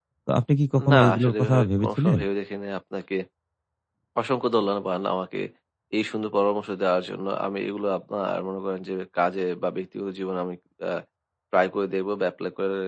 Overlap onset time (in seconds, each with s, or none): 0.9 s